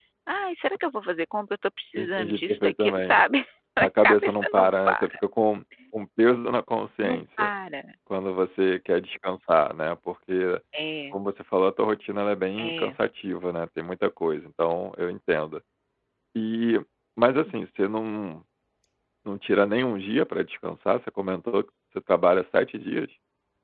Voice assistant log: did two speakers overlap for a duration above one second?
Yes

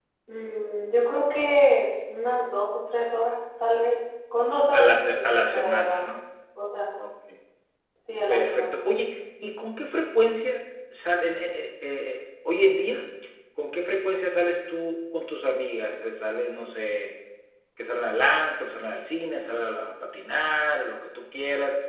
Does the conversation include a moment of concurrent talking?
Yes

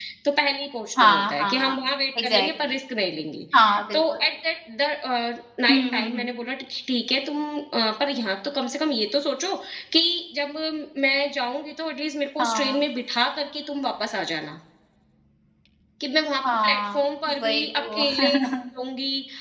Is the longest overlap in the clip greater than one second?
Yes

